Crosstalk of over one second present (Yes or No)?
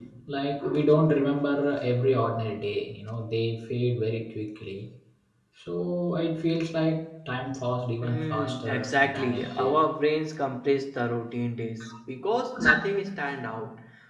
Yes